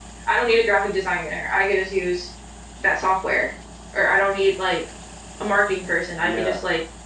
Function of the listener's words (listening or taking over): listening